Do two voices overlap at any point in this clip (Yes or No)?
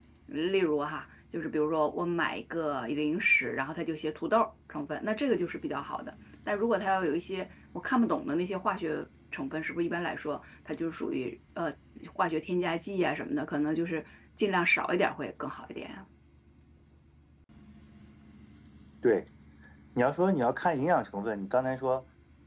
No